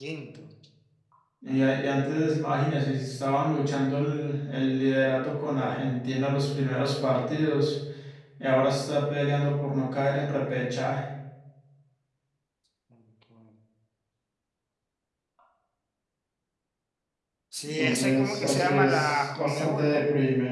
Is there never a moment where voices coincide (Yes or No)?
No